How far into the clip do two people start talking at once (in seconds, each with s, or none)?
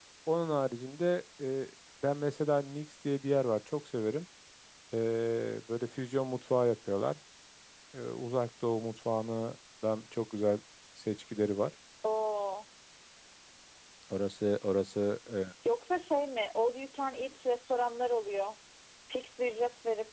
none